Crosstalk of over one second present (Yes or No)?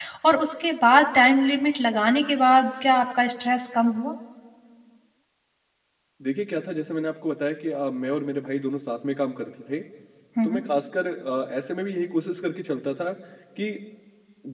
No